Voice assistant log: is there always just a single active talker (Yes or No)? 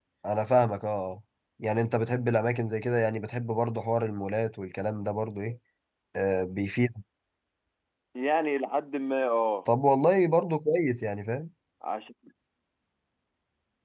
Yes